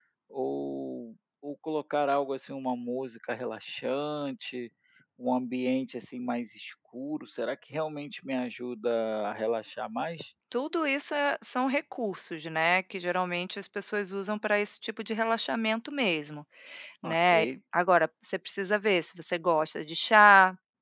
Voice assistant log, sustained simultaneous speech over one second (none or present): none